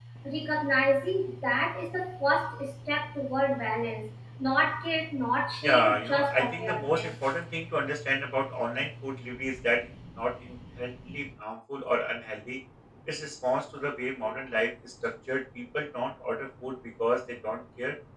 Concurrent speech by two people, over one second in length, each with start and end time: 5.6-7.1

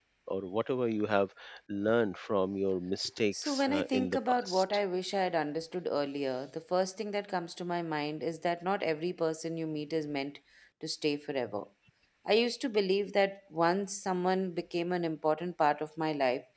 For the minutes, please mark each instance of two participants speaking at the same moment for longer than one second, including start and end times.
3.3-4.6

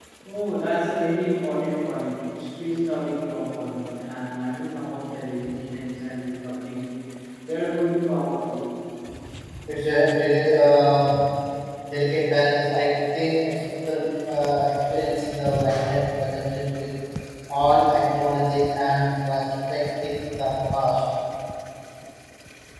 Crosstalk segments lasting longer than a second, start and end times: none

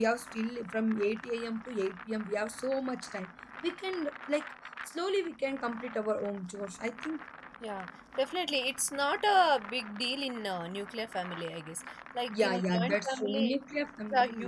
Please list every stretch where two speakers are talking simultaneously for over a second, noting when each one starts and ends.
12.3-13.6

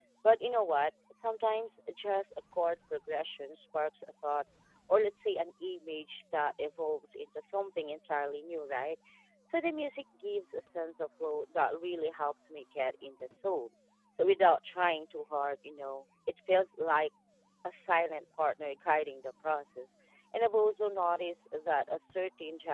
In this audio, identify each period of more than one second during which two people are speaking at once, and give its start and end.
none

